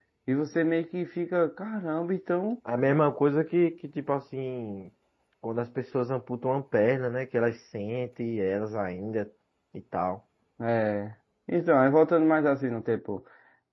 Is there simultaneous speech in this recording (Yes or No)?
No